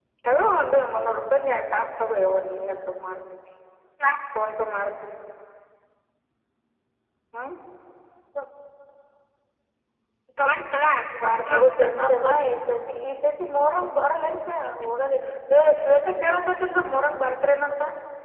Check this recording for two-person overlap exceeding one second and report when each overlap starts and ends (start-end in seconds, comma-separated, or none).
11.3-12.5